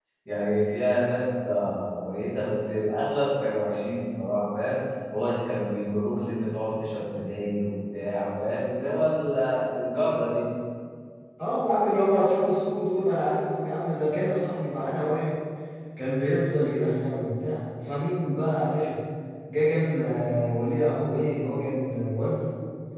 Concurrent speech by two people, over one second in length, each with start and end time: none

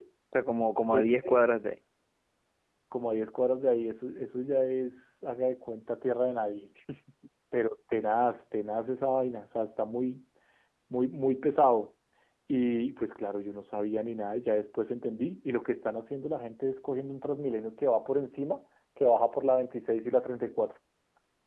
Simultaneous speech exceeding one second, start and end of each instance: none

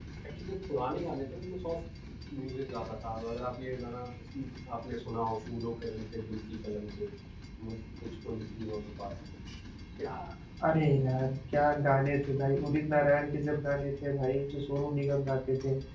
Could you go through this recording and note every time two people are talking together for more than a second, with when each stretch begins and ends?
none

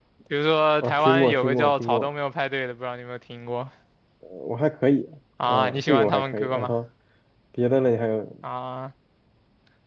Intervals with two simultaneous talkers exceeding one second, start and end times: 0.8-2.1, 5.4-6.7

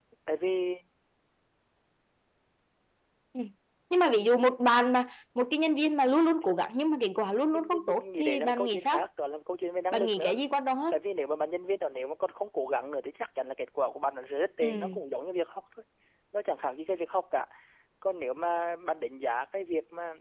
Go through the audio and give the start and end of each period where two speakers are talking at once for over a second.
7.5-9.0

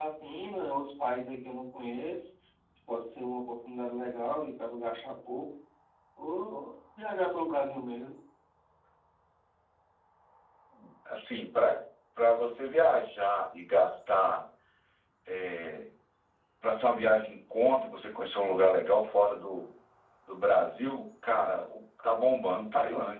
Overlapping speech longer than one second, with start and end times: none

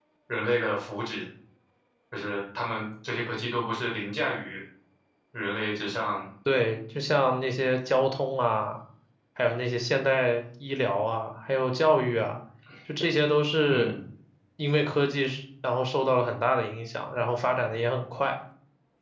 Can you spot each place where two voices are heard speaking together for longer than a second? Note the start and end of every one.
none

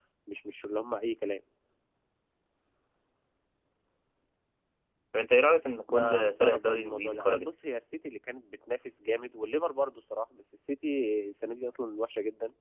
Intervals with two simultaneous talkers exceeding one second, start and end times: 5.9-7.5

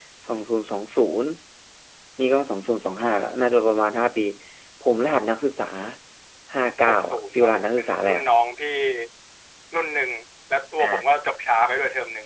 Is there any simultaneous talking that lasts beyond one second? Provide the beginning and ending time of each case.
6.9-8.2

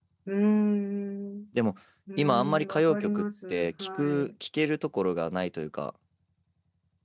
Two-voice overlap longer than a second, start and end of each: 2.2-4.3

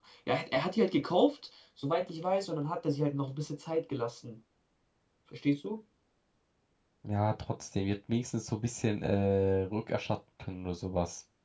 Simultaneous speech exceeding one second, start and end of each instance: none

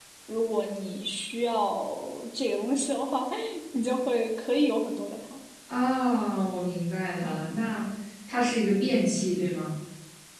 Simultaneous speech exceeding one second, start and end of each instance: none

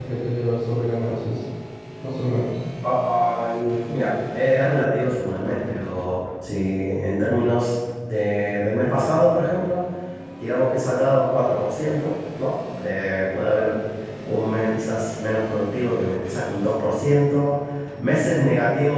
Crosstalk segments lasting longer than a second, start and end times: none

